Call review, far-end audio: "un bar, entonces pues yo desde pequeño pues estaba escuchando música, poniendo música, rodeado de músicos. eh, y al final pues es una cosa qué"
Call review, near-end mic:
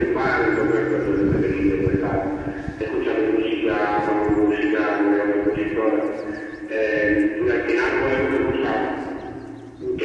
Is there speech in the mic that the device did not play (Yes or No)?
No